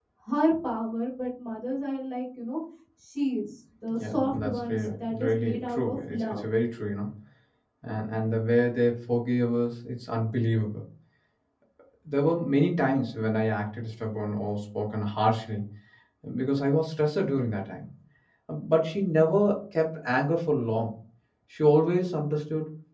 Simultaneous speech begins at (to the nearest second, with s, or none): 4 s